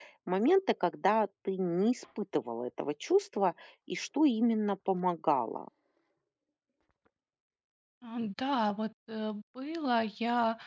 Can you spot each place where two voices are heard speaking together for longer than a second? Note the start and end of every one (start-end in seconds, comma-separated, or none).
none